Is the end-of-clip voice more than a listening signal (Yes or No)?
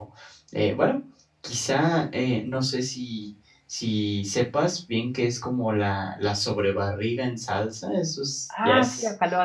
Yes